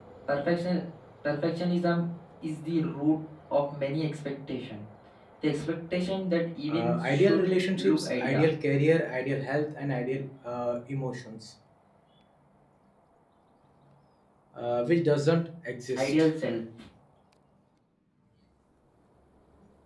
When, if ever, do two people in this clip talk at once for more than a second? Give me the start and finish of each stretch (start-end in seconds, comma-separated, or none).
6.7-8.4